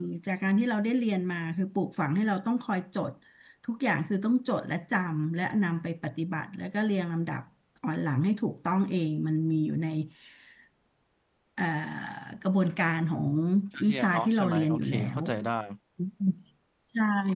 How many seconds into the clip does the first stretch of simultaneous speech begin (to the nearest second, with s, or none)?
14 s